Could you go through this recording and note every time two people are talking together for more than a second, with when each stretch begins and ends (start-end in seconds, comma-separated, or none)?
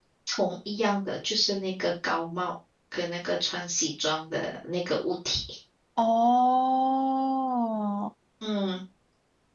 none